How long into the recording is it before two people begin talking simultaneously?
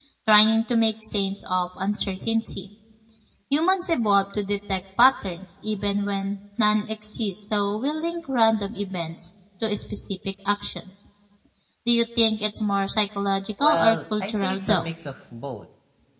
14 s

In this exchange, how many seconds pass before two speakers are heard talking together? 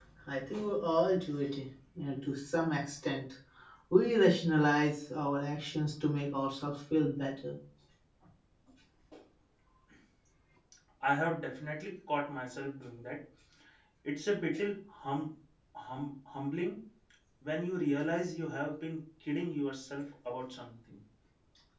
none

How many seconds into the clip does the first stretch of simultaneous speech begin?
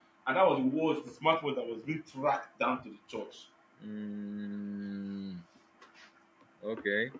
none

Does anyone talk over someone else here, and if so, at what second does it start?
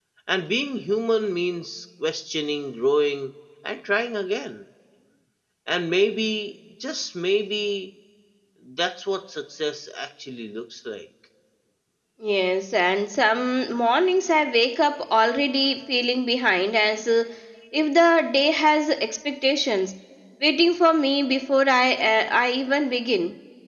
none

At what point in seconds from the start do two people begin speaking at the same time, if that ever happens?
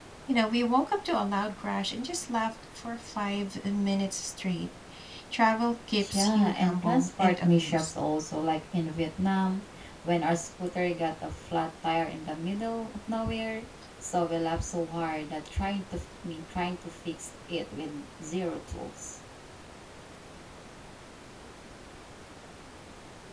6 s

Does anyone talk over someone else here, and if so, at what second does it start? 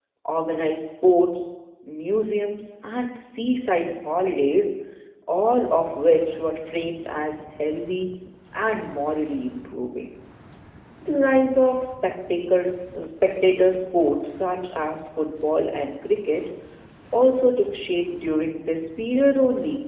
none

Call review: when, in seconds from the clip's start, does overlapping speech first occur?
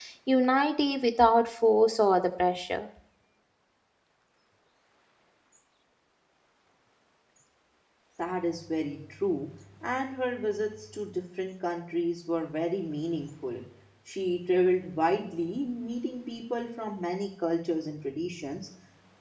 none

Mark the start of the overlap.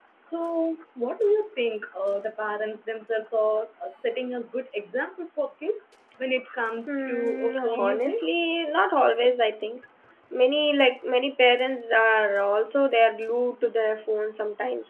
7 s

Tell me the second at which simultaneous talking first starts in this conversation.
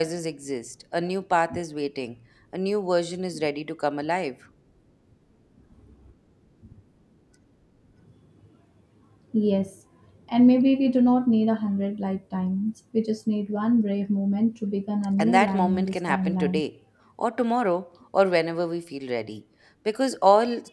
15 s

